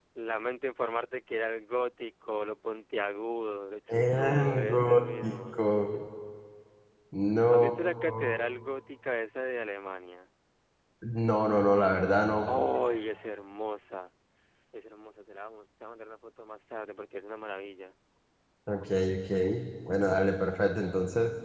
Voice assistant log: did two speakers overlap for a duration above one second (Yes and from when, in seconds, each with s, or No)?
Yes, from 4.0 s